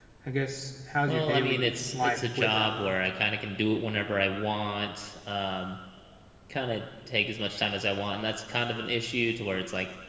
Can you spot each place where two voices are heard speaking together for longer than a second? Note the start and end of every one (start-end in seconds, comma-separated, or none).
1.1-2.9